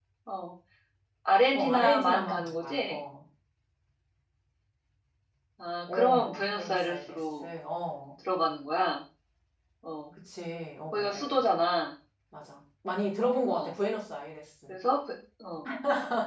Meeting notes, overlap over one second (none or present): present